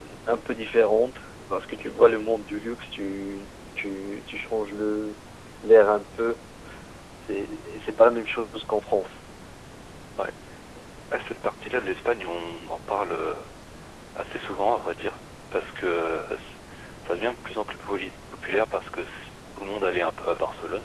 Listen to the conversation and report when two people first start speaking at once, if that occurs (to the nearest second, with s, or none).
none